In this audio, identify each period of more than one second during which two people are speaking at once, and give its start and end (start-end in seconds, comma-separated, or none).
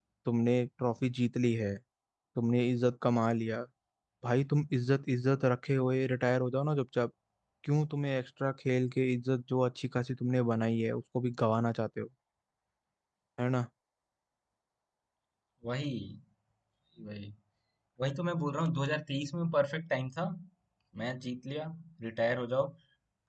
none